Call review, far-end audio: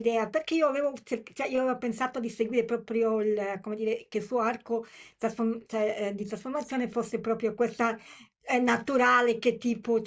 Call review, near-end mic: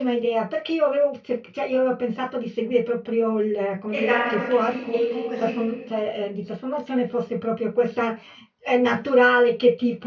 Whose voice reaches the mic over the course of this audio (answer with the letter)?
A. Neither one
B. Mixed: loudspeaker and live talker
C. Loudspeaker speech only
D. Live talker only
B